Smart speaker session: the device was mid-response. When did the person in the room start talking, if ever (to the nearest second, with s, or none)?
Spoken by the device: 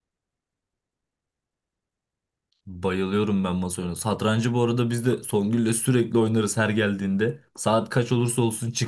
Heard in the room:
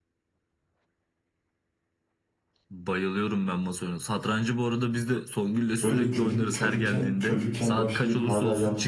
6 s